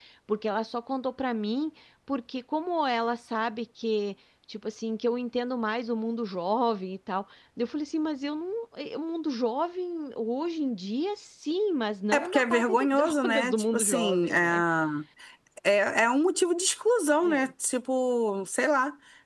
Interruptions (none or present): present